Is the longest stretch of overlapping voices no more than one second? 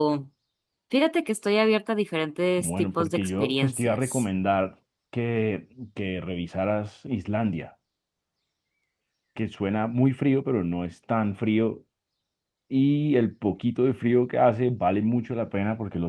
No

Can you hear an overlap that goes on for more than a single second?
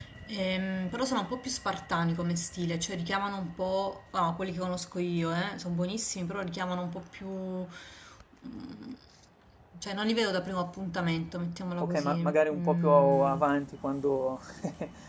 Yes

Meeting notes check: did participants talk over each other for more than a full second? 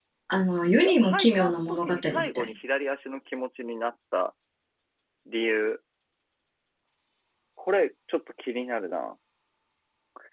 Yes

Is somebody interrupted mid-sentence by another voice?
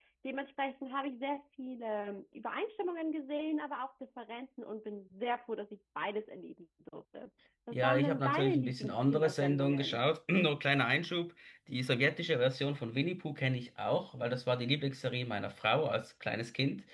Yes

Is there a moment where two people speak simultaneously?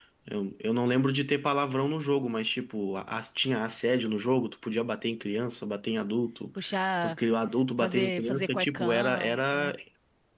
Yes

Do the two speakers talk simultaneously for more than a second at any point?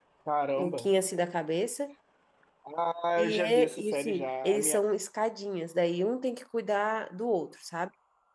Yes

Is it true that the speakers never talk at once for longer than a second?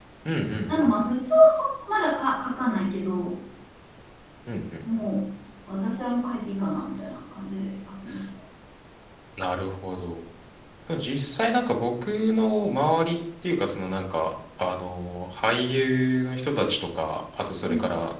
Yes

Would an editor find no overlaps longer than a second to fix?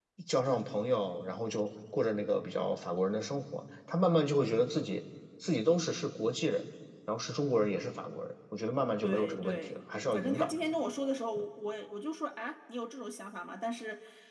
No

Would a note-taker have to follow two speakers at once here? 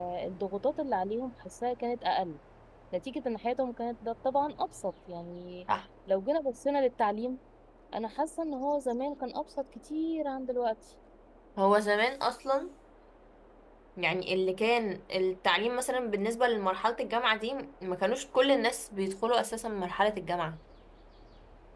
No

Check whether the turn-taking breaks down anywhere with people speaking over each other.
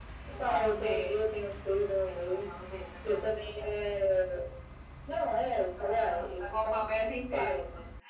Yes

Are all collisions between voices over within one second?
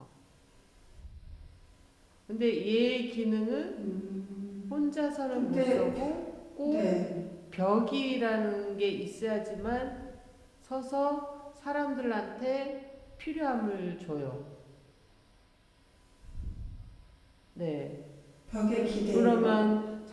Yes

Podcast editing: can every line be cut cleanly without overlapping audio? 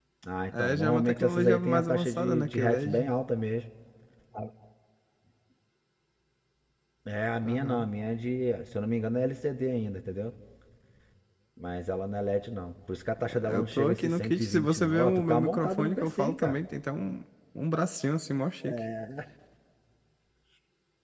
No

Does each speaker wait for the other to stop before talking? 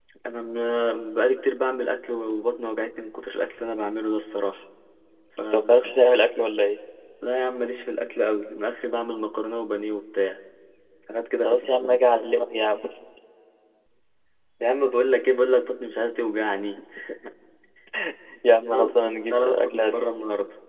No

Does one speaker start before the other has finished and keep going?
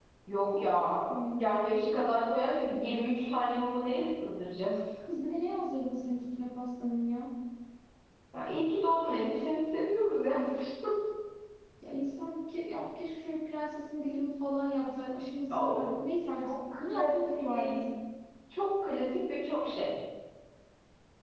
Yes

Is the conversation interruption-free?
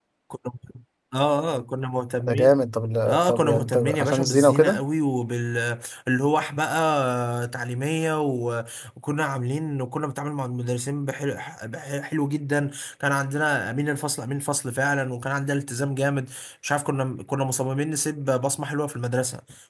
No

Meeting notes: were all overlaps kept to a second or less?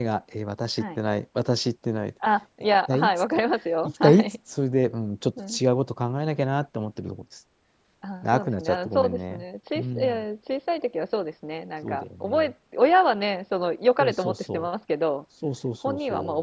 No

